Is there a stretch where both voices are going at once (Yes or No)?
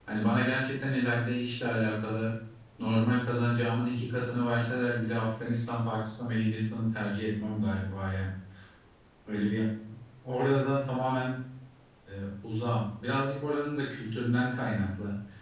No